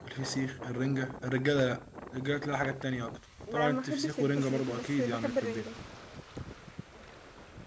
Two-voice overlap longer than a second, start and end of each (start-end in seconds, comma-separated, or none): 3.5-5.7